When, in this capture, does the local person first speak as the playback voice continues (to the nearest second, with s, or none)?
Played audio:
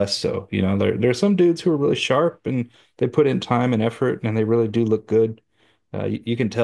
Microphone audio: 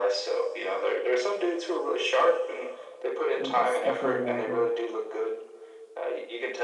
3 s